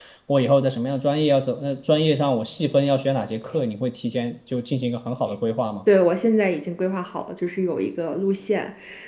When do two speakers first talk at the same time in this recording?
none

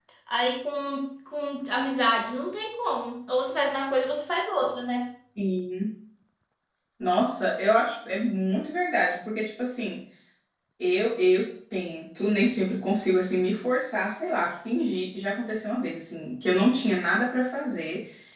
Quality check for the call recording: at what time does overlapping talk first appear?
none

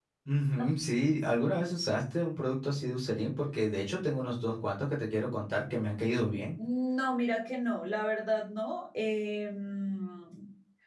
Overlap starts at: none

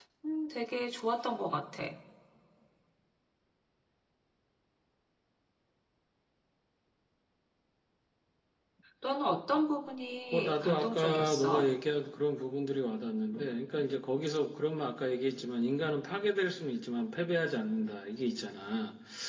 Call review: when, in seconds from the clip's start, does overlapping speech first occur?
10.3 s

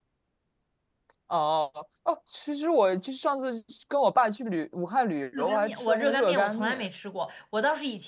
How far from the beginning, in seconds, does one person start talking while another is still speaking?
5.3 s

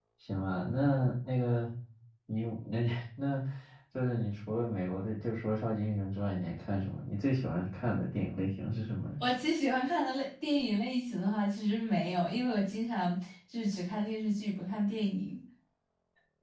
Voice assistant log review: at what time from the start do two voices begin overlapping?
none

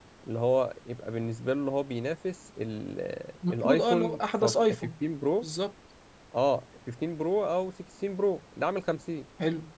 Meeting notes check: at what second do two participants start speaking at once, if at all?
3.5 s

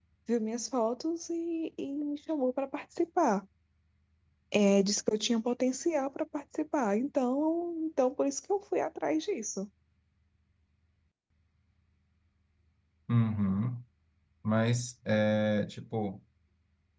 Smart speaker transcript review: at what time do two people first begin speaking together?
none

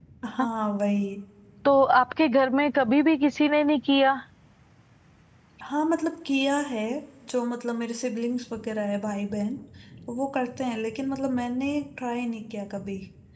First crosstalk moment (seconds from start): none

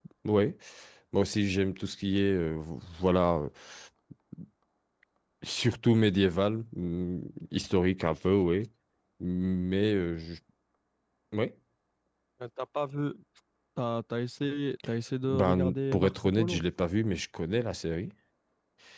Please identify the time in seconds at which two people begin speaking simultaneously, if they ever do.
15.2 s

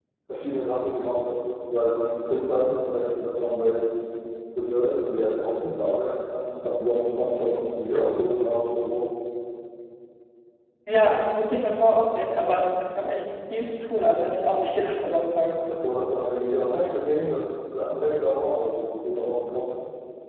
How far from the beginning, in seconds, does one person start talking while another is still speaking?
none

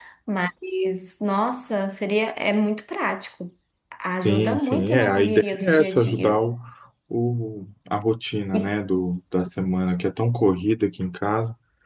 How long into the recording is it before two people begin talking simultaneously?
4.2 s

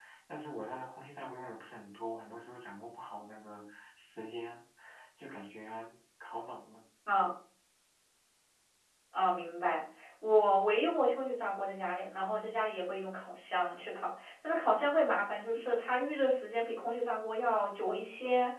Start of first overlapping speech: none

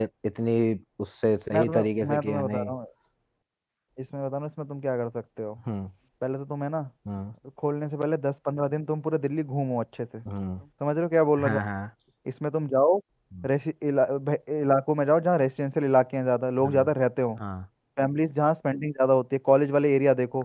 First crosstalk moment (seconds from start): 1.5 s

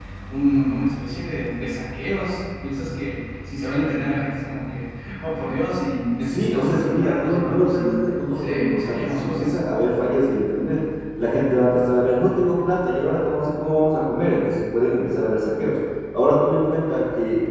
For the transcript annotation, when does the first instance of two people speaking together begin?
6.3 s

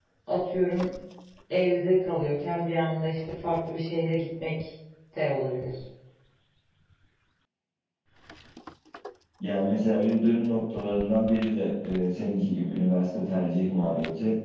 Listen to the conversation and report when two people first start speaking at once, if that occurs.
none

